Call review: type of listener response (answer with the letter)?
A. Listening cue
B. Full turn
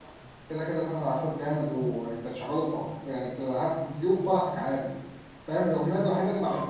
A